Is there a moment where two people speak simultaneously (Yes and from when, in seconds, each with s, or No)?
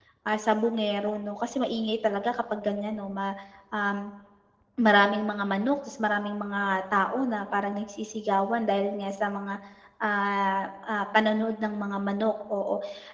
No